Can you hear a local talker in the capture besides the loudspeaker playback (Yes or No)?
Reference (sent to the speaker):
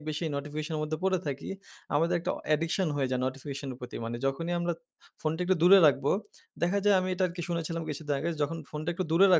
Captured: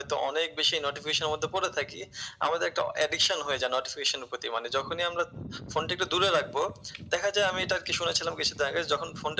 No